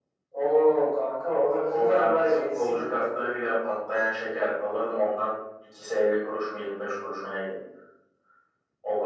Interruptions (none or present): present